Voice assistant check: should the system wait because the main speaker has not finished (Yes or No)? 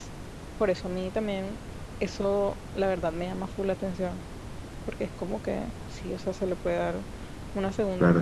No